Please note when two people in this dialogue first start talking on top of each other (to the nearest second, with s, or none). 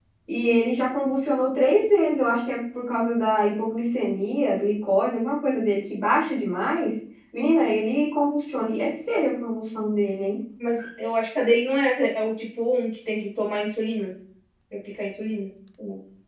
none